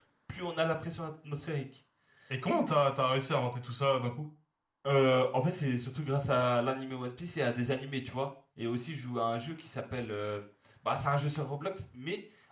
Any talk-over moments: No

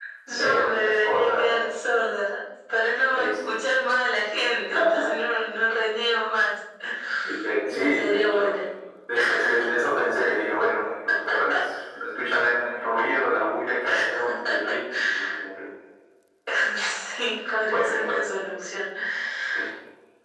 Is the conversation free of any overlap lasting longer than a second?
No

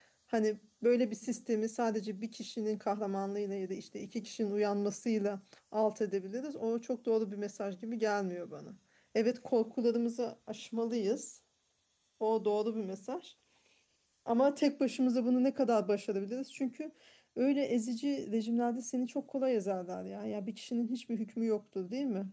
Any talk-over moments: No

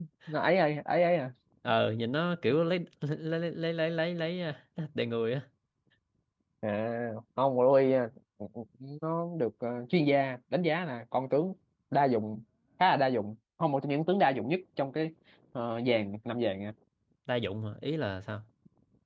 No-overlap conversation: Yes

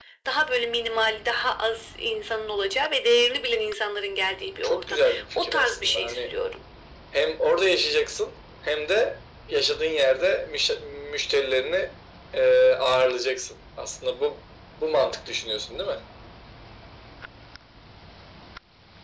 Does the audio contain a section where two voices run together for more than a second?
Yes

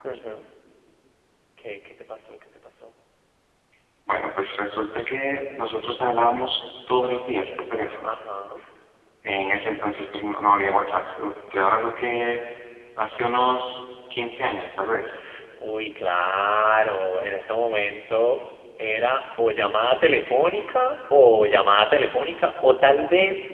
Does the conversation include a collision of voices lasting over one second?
No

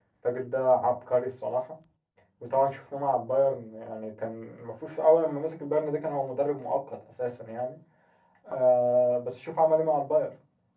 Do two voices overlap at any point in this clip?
No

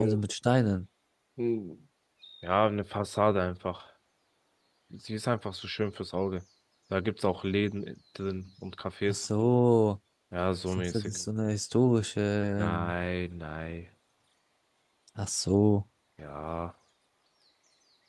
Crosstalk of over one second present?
No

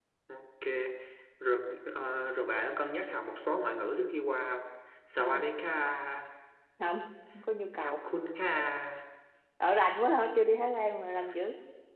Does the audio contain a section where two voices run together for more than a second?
No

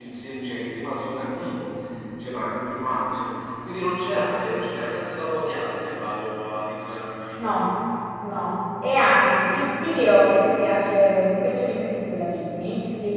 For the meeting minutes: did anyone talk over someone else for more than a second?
No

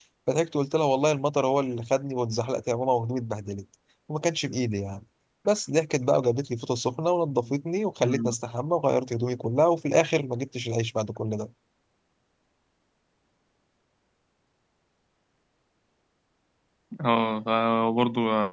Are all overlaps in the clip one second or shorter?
Yes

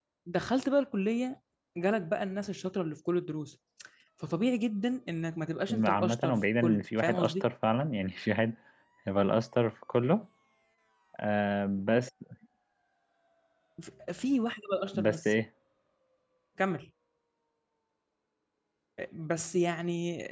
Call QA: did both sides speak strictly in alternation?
No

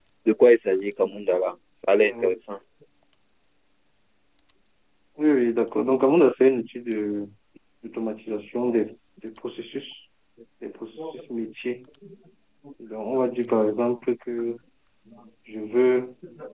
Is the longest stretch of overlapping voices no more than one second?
Yes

